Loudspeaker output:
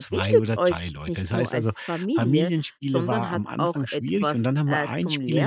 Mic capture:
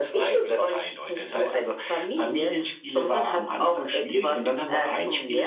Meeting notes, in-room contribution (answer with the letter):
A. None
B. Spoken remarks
A